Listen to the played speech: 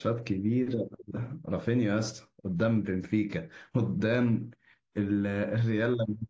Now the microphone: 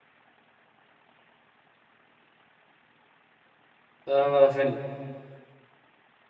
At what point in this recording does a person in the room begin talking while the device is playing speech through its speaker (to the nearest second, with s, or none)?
4 s